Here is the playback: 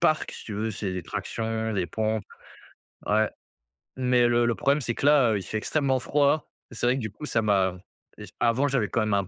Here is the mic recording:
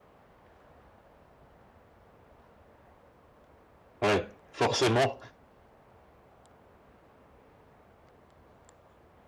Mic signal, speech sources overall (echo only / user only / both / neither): user only